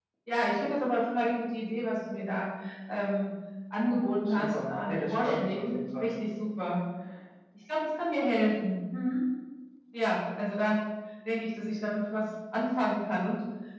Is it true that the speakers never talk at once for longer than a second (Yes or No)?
No